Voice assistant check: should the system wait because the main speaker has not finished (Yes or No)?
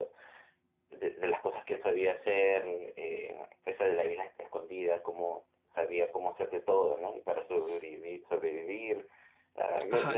No